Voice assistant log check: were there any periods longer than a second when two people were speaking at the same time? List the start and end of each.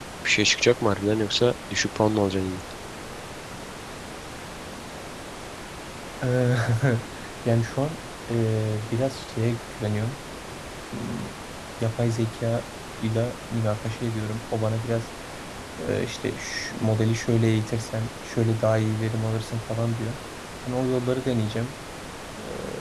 none

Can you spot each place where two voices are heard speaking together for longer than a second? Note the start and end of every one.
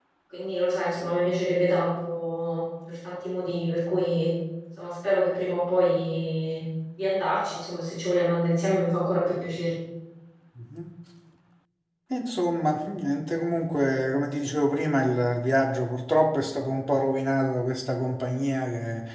none

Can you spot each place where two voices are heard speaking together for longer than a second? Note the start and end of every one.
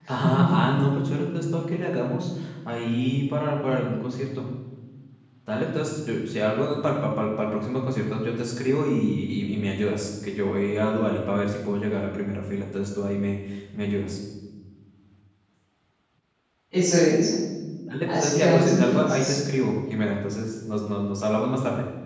18.1-19.3

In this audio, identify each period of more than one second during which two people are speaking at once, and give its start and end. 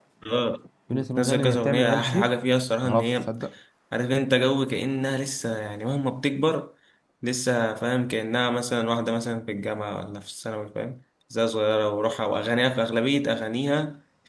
0.9-2.3

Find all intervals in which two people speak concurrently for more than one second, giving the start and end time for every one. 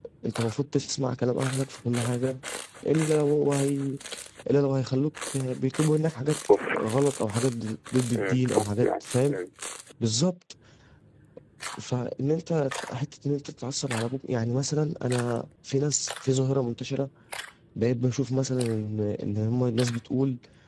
8.1-9.4

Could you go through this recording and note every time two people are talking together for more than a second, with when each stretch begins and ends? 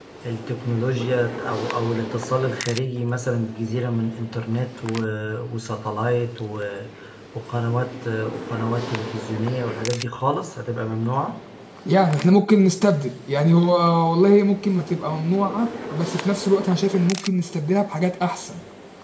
none

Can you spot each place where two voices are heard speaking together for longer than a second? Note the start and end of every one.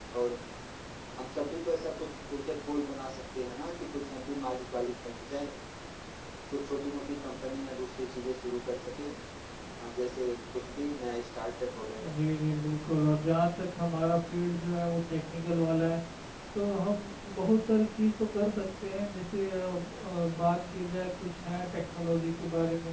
none

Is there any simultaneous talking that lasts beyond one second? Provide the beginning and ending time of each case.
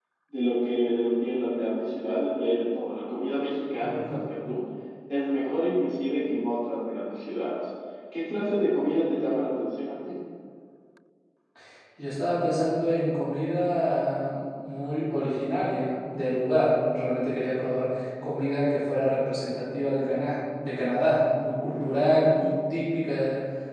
none

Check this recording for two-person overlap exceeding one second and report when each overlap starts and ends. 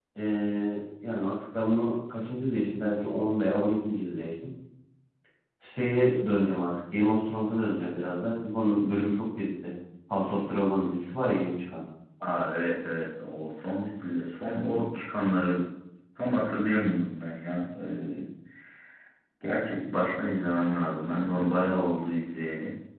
none

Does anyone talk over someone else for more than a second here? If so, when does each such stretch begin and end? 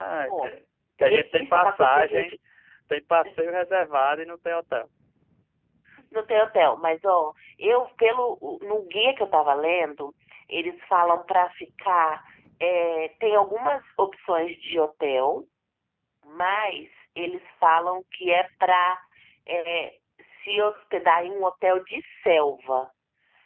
1.0-2.3

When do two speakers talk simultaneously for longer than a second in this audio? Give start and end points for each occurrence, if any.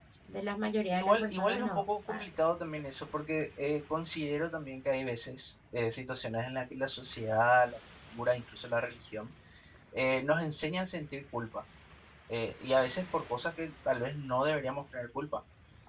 0.9-2.2

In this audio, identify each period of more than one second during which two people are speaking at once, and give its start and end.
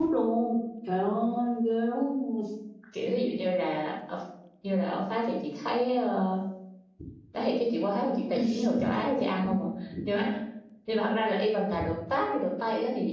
none

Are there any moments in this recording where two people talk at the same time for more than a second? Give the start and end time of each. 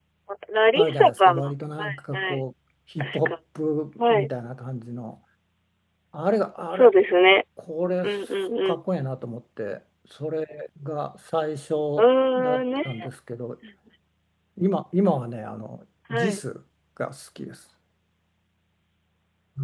0.8-2.4

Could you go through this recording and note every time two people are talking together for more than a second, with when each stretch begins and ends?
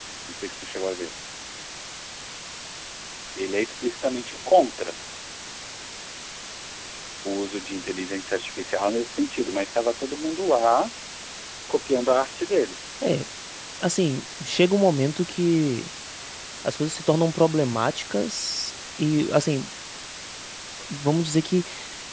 none

